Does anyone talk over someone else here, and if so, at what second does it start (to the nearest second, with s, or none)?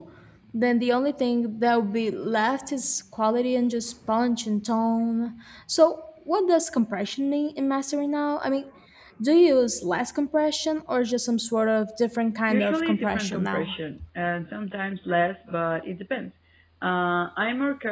12 s